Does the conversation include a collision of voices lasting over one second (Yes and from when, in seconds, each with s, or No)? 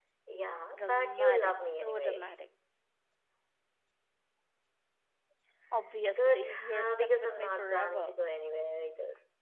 Yes, from 0.7 s